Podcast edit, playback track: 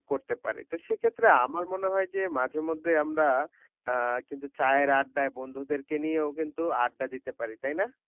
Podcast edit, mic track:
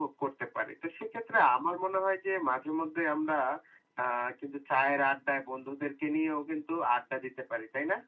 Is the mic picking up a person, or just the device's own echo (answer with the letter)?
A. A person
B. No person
B